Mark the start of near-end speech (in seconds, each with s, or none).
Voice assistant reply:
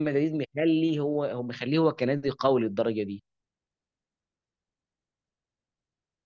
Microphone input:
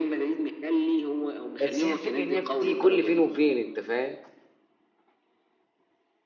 1.6 s